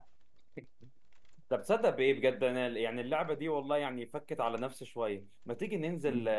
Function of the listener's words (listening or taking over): listening